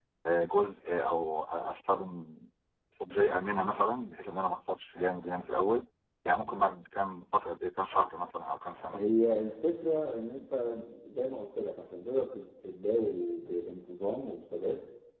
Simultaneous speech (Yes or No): No